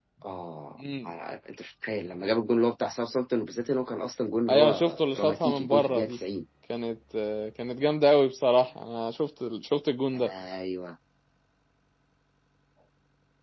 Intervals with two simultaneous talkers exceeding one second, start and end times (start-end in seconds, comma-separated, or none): 4.5-6.2